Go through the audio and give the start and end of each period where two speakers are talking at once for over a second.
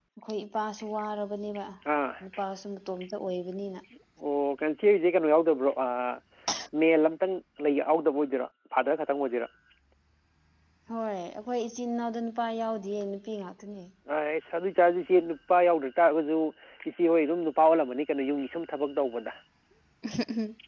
none

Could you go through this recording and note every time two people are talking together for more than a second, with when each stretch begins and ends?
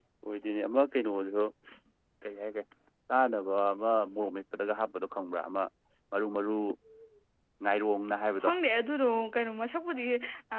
none

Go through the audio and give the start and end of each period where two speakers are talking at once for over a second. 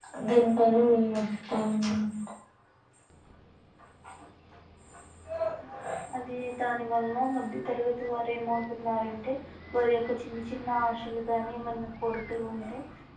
none

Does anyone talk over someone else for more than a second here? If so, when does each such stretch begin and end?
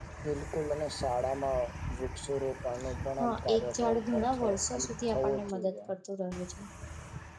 3.2-5.7

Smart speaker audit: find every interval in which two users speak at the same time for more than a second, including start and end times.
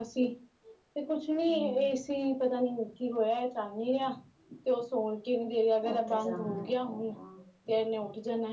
5.9-7.1

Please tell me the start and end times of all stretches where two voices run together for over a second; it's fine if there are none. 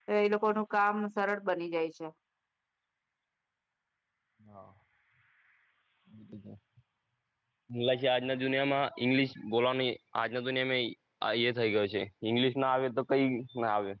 none

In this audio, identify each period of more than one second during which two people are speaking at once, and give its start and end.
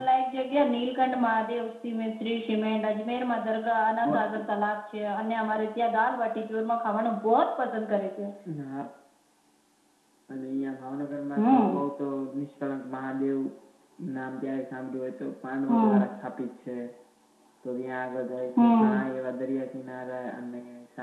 none

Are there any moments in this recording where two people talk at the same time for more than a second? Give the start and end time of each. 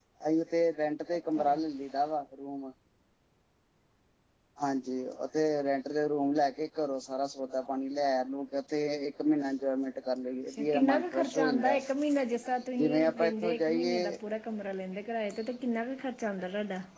10.5-11.8, 12.8-14.2

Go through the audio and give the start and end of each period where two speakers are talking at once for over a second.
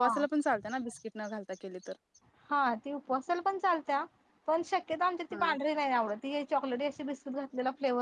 none

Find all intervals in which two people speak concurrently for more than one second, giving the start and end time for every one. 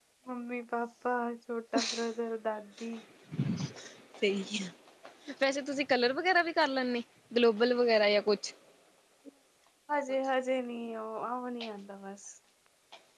none

